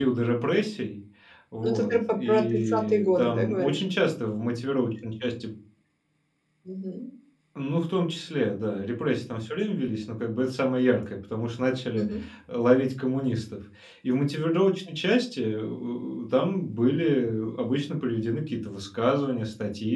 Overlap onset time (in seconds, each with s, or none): 1.6 s